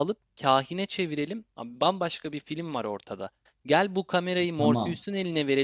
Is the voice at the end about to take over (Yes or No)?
No